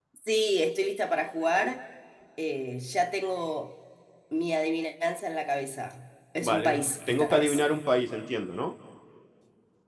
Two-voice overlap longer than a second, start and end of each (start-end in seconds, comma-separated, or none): 6.4-7.6